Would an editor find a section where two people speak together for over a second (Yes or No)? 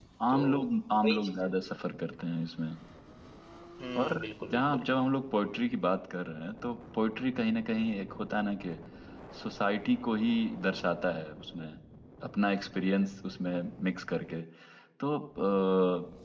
Yes